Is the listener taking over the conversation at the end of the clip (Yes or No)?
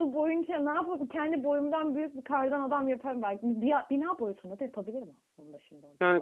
Yes